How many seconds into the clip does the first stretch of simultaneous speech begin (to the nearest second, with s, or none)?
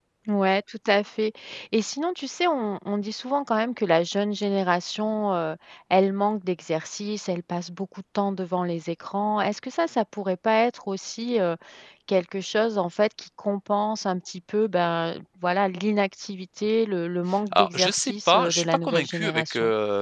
18 s